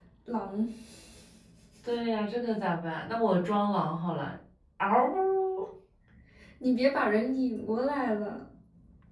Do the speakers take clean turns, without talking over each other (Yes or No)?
Yes